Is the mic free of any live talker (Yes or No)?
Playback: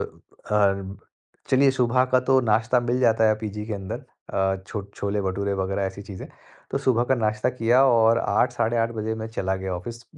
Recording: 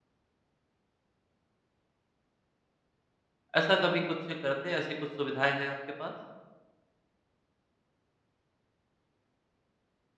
No